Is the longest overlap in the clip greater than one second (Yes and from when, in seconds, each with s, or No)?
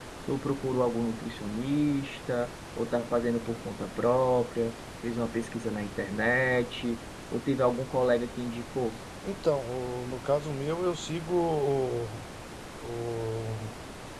No